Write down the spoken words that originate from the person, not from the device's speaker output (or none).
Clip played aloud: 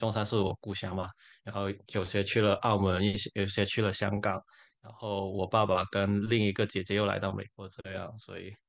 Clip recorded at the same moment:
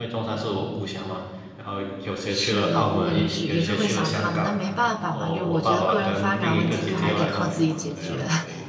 是的，我也是也是会想他们，但没办法嘛，就我觉得个人发展问题就还是得靠自己解决。